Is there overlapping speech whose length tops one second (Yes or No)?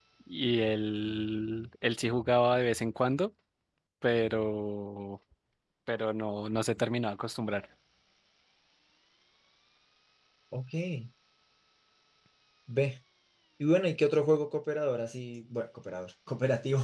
No